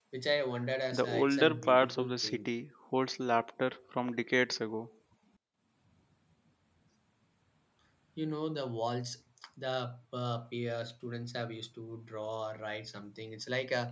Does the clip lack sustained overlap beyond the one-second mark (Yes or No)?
No